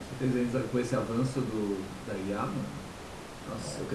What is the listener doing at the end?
listening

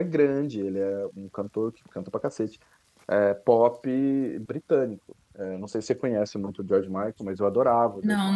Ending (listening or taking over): taking over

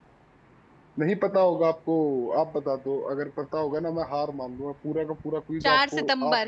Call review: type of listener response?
taking over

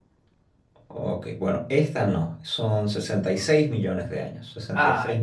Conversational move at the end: listening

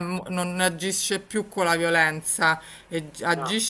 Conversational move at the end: listening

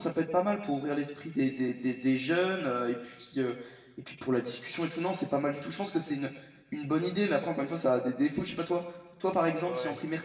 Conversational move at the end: listening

